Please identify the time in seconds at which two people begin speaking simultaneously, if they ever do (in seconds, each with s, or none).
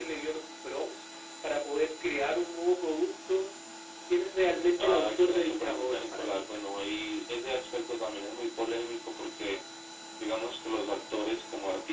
4.8 s